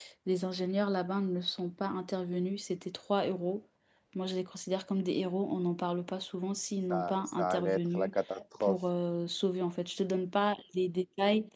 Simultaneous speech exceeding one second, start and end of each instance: 6.9-8.1

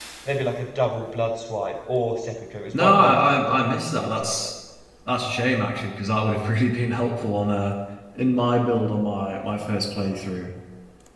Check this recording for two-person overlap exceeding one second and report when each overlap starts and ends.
2.7-4.5

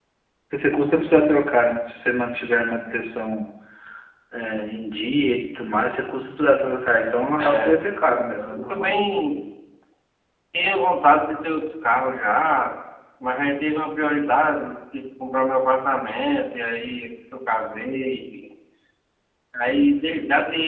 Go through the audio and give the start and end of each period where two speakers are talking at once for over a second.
7.4-9.0

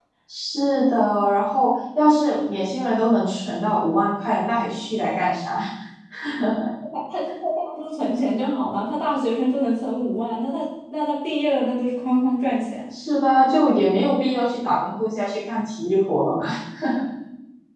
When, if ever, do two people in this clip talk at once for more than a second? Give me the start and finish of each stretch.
none

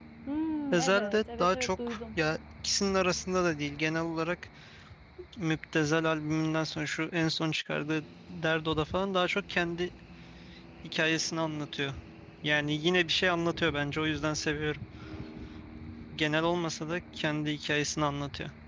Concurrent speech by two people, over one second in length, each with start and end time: 0.7-2.0

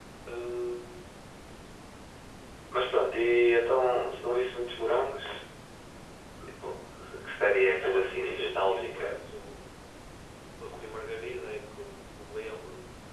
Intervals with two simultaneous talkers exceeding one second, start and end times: 7.8-9.1

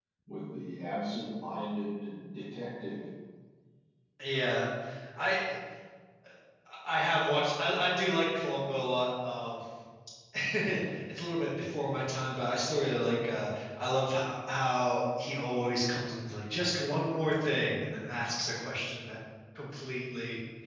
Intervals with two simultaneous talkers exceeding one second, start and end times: none

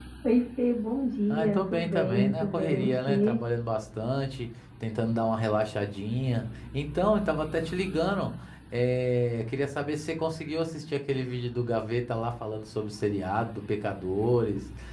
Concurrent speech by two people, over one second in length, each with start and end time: 1.3-3.4

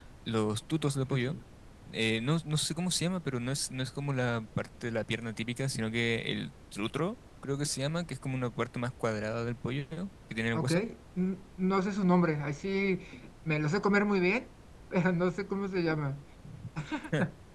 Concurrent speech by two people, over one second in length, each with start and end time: none

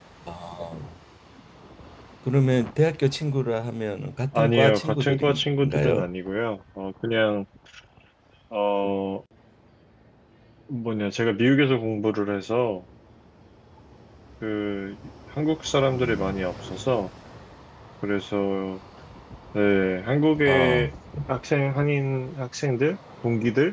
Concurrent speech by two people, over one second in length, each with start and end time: 4.3-6.0

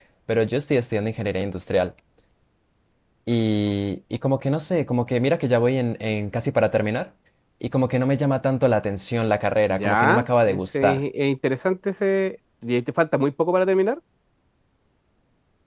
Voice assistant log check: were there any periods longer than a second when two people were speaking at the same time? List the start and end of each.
9.7-11.0

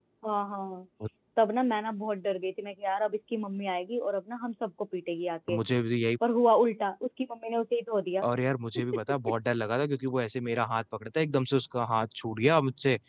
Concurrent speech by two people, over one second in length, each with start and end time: none

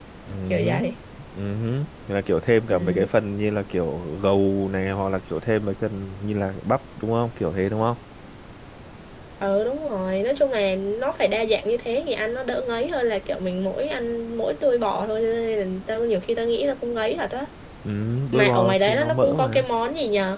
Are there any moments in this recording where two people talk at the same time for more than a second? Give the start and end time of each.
18.3-19.6

